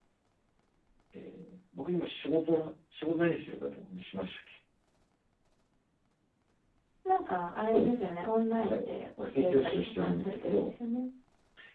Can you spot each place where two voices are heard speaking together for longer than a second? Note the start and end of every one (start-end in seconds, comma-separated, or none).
9.3-10.7